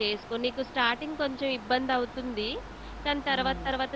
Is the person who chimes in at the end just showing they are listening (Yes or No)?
Yes